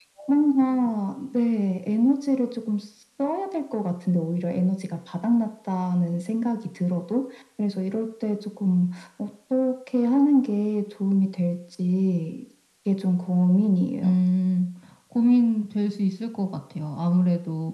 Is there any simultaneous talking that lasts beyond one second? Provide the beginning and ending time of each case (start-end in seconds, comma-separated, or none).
none